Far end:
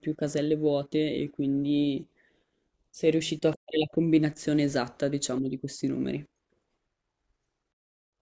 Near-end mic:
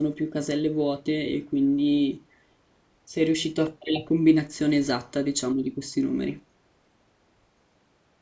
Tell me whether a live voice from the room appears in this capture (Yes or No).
No